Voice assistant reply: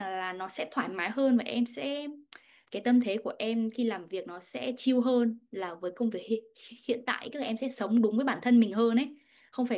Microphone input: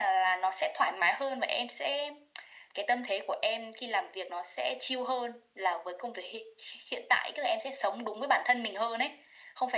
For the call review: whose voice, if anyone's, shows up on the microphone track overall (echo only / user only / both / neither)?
echo only